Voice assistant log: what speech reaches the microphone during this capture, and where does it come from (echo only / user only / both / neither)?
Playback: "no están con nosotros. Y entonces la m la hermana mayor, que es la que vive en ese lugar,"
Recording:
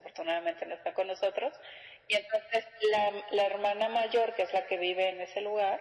echo only